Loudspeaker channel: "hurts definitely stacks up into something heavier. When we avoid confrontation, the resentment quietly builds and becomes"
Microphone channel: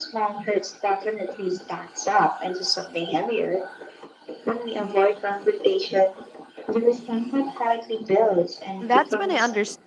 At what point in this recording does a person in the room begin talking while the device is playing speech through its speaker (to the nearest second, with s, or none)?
9 s